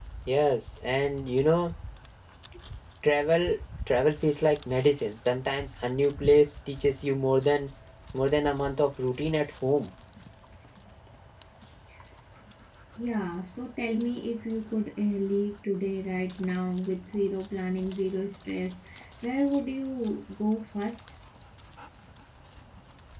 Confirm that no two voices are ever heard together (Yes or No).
Yes